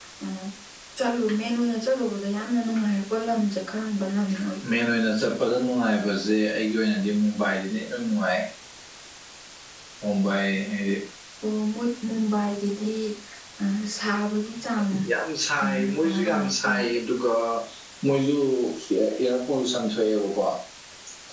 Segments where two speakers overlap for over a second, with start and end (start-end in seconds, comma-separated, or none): 15.6-16.8